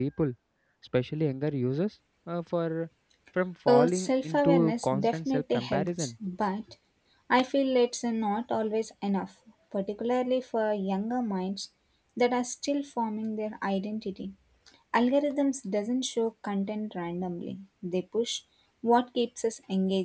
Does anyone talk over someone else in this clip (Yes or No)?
Yes